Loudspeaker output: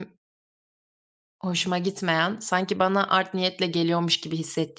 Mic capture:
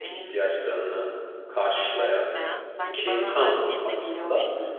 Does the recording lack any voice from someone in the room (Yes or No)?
No